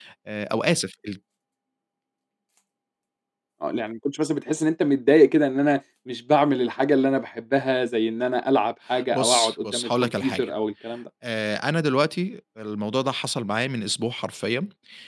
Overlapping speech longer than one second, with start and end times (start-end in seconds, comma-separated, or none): 9.1-10.5